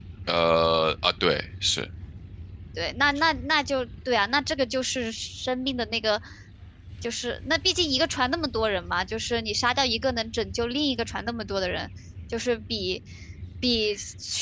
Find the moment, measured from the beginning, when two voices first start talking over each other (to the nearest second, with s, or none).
none